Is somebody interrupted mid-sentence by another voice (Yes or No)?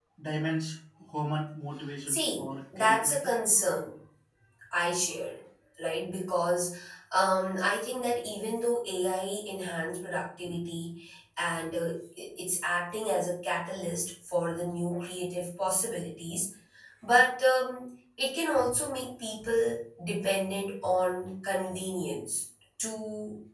Yes